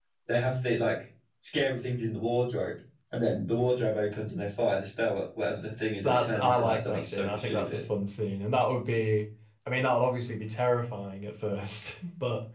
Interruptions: present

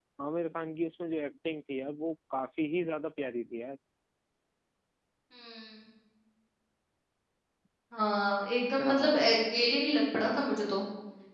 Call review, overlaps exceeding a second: none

